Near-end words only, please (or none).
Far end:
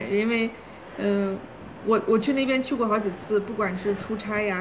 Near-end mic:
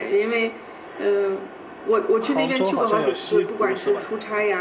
杭州好像有西湖是吧？